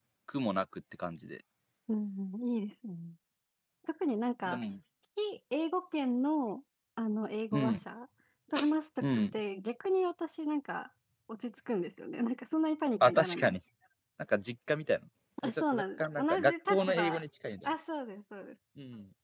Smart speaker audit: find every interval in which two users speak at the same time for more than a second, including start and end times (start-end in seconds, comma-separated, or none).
15.4-17.2